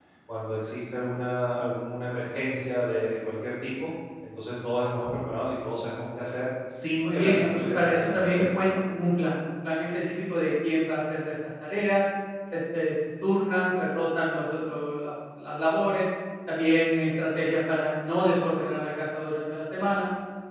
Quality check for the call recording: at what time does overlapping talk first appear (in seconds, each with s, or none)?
7.0 s